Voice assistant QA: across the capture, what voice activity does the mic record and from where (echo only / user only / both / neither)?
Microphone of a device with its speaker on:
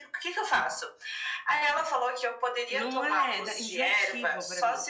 both